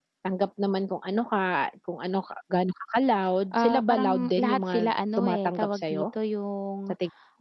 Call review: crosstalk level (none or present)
present